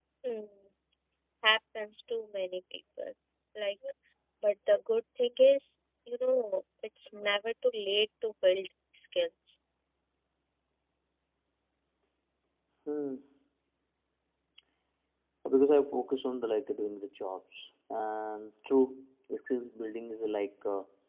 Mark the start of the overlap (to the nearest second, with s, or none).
none